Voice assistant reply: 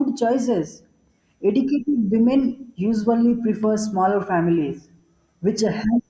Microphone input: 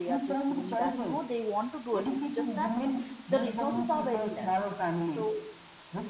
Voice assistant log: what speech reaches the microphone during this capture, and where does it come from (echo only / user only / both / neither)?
both